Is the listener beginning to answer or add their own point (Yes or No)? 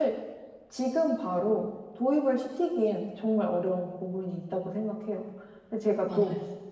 No